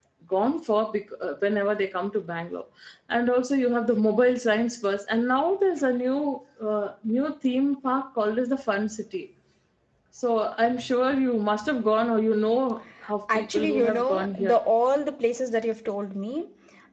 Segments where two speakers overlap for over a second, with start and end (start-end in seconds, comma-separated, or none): 13.3-14.6